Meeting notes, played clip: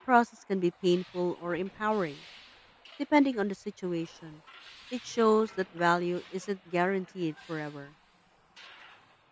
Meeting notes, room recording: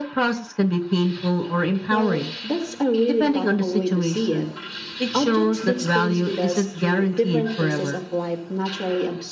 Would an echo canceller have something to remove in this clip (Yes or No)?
Yes